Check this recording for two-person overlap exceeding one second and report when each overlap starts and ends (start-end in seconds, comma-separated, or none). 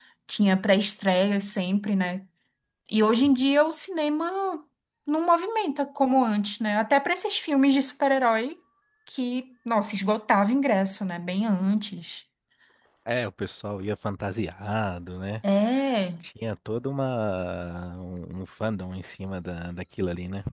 none